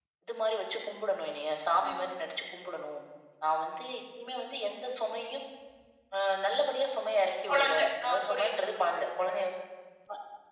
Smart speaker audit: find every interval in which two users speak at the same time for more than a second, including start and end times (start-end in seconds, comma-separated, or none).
7.5-9.1